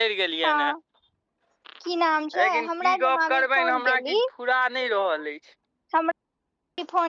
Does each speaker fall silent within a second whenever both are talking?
No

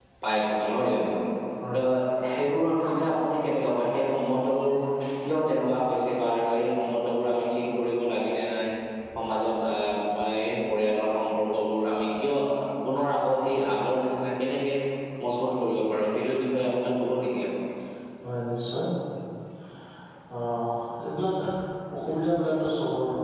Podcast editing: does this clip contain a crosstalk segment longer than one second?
No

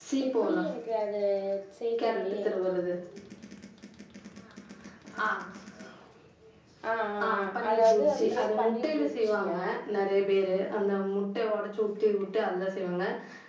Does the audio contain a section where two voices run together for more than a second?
Yes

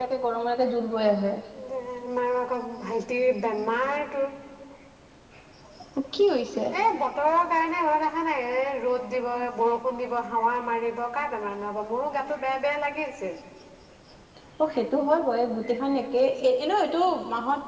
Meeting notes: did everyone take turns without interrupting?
Yes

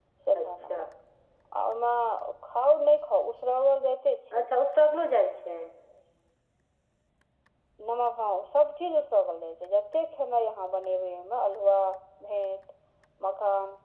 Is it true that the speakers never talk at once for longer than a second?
Yes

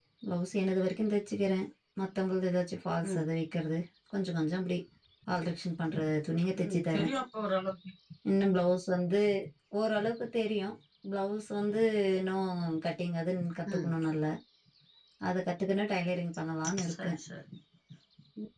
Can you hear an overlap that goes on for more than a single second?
No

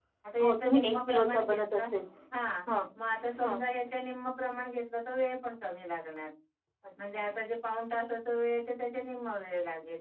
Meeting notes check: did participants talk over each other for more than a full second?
Yes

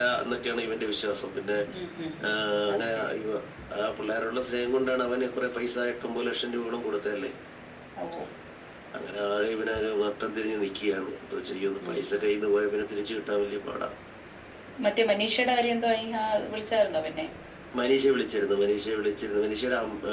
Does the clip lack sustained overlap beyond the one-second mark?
Yes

